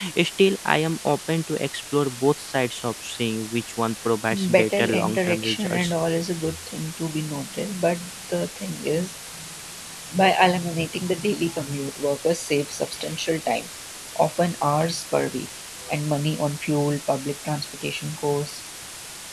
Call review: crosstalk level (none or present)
present